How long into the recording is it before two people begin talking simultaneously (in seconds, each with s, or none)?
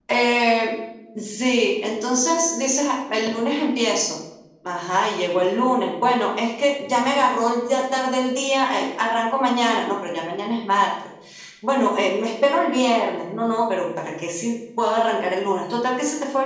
none